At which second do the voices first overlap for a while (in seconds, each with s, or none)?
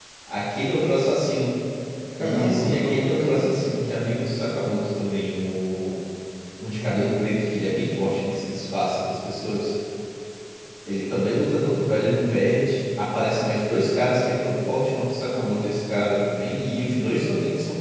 2.2 s